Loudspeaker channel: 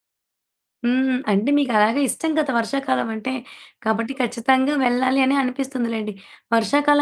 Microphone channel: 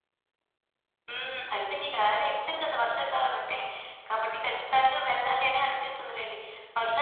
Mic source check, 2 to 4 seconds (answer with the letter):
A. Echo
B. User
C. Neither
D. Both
A